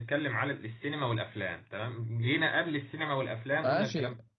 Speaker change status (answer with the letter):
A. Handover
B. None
A